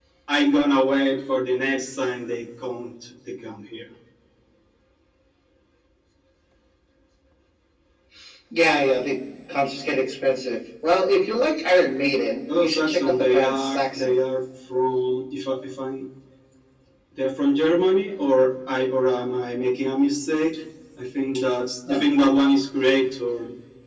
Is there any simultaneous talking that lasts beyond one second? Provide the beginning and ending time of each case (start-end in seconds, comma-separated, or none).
12.6-14.1